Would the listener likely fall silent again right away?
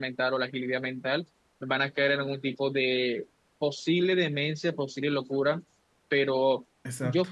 Yes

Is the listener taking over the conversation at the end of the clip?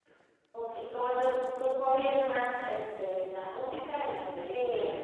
Yes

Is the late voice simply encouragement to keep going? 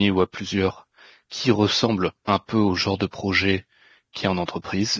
Yes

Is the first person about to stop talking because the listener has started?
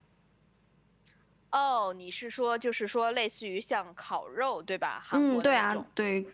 Yes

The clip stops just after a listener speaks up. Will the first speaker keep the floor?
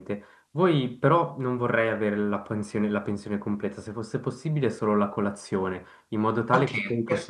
No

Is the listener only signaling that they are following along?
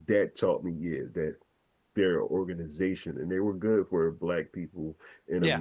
Yes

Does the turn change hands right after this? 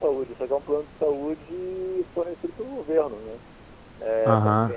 Yes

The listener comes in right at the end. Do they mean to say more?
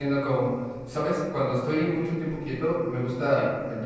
No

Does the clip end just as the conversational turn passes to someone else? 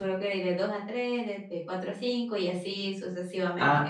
Yes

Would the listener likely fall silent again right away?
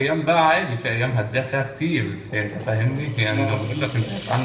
Yes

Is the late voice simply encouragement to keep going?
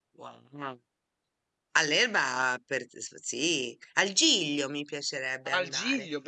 No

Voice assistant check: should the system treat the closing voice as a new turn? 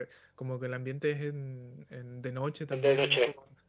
No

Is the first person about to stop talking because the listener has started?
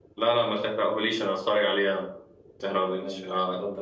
Yes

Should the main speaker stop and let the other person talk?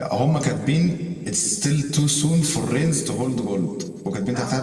No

